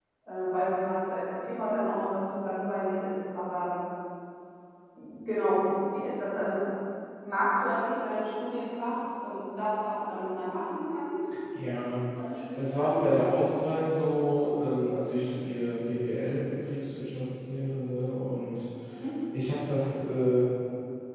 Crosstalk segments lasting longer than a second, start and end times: none

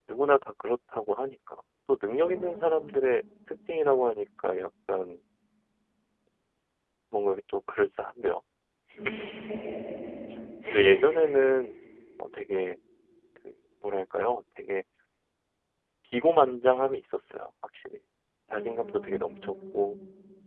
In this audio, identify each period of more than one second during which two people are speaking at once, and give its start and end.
18.5-19.8

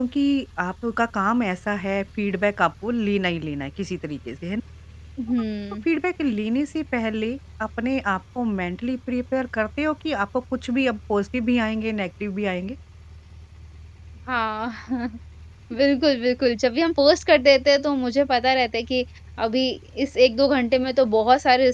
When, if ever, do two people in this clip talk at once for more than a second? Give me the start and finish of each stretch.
none

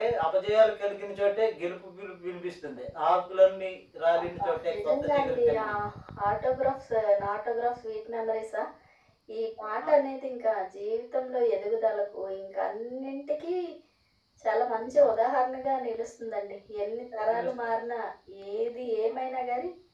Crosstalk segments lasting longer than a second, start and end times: 4.2-5.7

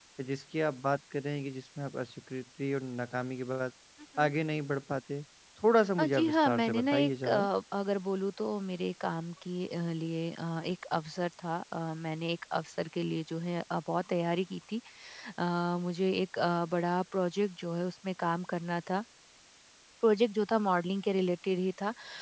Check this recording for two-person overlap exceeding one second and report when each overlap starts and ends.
6.0-7.4

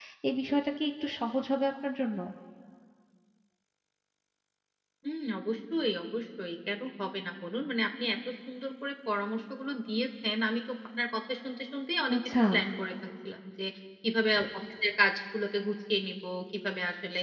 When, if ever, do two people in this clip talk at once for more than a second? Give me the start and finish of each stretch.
none

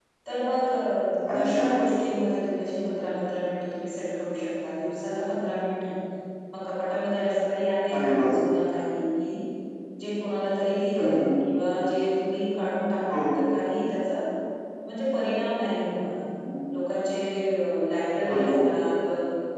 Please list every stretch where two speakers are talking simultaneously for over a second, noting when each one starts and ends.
none

